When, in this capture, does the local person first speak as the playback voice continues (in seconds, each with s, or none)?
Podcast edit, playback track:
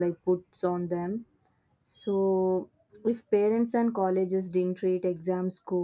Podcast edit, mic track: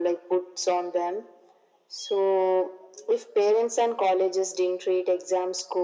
none